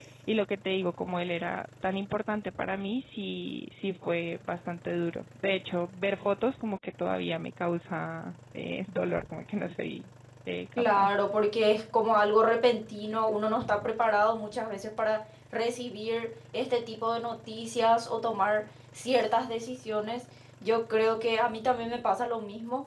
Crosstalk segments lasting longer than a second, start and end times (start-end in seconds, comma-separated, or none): none